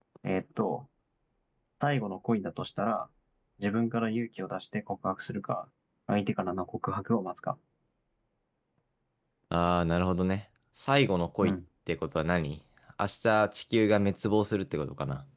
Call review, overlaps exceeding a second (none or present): none